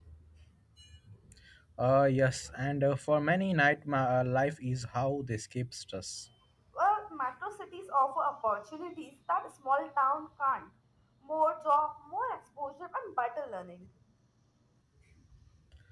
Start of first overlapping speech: none

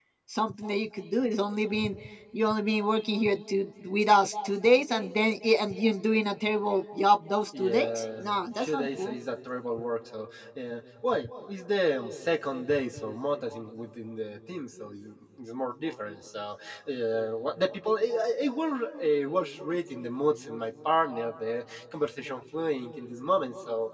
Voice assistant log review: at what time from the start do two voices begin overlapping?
7.5 s

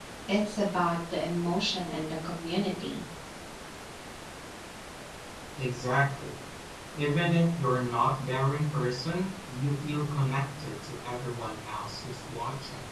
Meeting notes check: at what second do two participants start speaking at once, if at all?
none

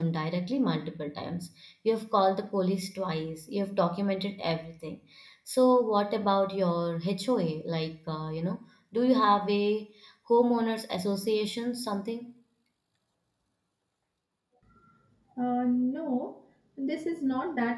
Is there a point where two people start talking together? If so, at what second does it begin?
none

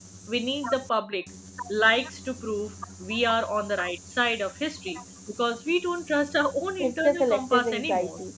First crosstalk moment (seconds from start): 6.8 s

